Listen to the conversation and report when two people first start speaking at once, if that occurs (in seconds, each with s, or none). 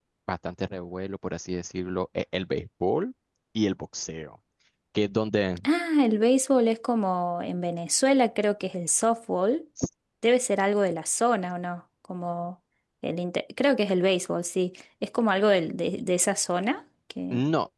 none